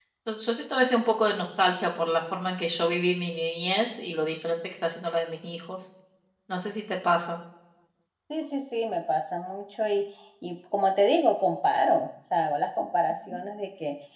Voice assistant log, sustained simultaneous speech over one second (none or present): none